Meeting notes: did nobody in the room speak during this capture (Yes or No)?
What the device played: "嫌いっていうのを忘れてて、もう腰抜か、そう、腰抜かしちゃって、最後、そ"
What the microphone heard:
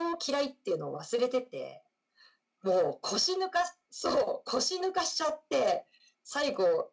Yes